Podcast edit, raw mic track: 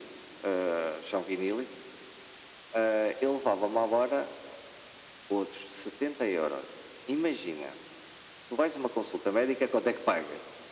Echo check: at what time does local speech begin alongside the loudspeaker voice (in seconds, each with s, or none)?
none